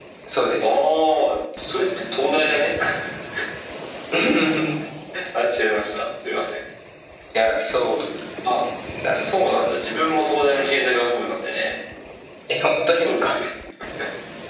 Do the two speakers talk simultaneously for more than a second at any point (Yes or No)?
No